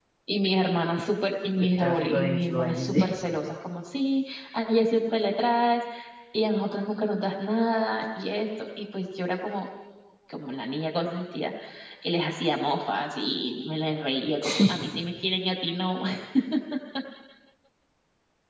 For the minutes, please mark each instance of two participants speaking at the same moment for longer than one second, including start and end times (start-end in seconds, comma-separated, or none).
1.6-3.0